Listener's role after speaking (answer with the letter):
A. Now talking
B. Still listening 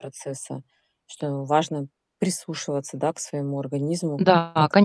A